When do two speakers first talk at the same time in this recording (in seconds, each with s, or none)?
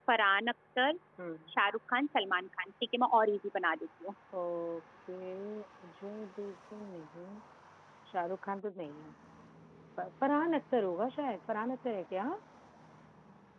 none